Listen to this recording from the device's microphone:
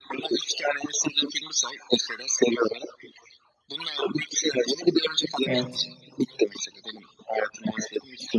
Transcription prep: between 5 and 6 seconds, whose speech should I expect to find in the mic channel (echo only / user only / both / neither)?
both